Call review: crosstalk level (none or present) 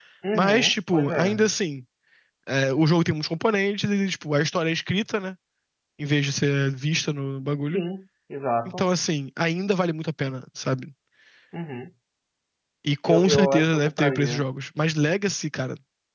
present